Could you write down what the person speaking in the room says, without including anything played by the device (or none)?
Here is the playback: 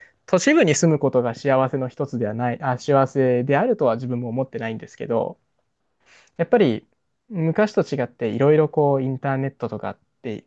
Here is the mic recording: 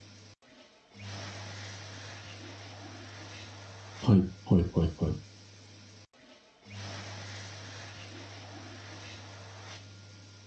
はい、はい、はい、はい。